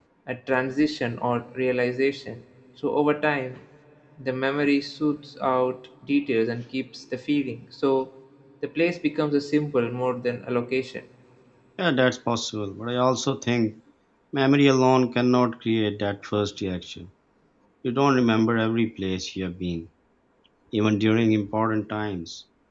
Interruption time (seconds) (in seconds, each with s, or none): none